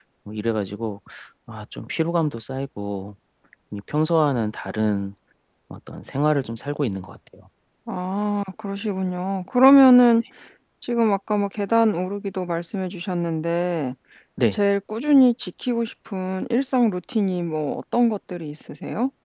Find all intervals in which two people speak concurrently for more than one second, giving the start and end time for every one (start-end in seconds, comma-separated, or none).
none